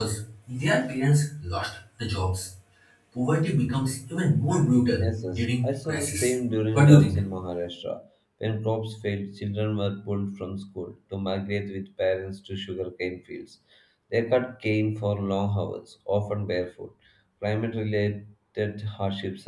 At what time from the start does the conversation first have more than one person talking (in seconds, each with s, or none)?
5.0 s